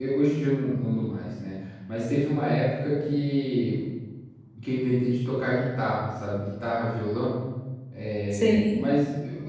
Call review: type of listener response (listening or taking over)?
listening